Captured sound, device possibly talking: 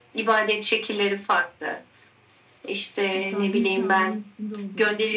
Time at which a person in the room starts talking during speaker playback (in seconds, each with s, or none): 3.1 s